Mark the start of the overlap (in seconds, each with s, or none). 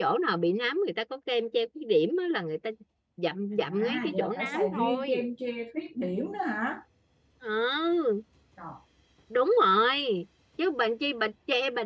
3.6 s